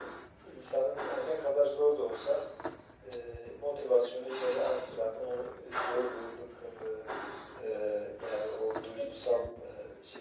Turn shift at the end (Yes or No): No